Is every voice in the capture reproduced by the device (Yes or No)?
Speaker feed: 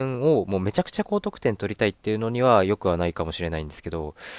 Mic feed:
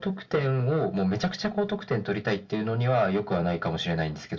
Yes